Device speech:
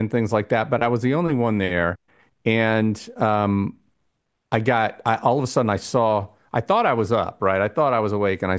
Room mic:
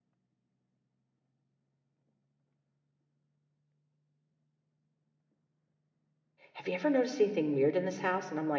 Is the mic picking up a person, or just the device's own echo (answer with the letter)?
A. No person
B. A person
B